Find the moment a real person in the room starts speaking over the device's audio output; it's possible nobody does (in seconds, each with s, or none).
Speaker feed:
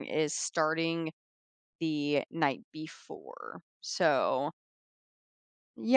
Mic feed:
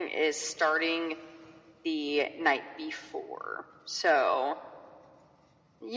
none